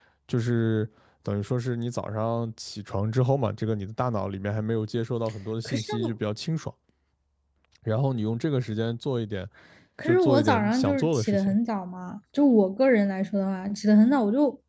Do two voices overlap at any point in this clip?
Yes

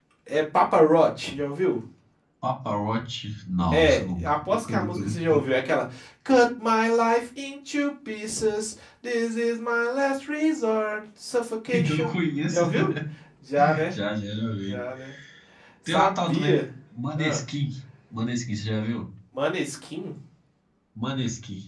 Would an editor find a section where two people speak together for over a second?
Yes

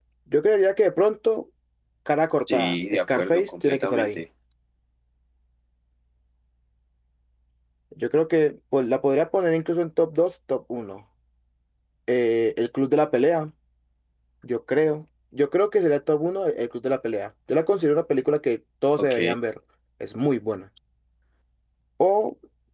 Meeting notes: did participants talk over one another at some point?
Yes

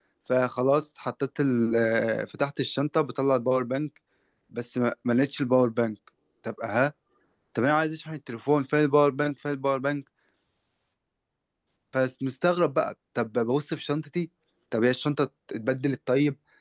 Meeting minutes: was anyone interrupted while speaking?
No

